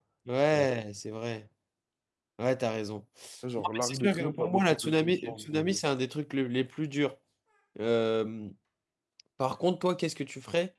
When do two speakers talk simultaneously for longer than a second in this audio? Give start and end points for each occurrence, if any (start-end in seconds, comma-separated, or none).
3.6-5.8